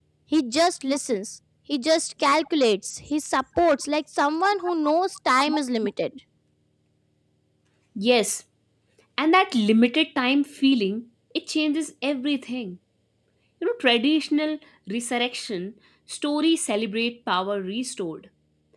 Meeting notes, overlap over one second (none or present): none